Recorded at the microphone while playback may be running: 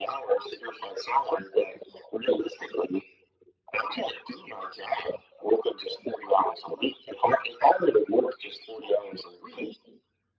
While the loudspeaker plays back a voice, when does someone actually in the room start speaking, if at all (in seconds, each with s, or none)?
none